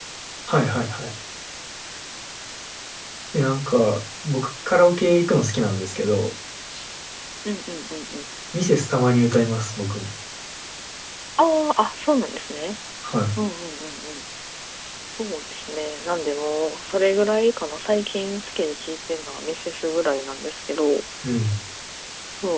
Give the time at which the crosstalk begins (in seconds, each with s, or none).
none